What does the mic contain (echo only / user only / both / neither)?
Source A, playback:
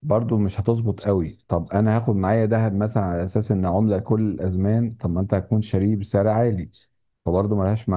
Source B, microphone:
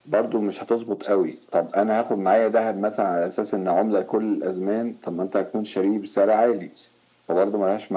echo only